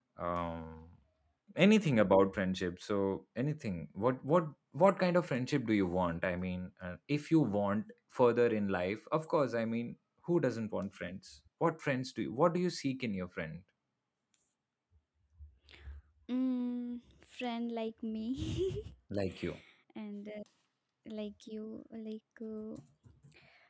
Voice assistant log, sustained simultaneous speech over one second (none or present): none